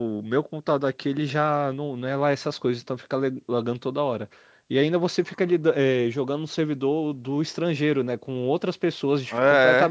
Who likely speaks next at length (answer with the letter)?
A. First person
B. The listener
A